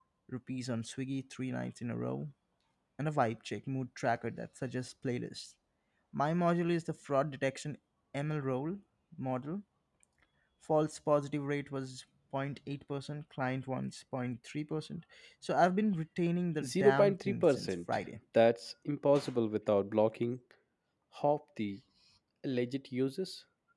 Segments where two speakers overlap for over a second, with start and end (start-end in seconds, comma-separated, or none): 16.6-18.0